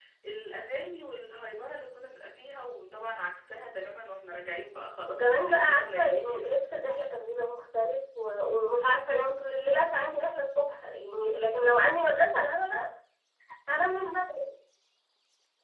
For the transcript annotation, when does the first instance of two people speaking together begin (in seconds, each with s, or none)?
5.2 s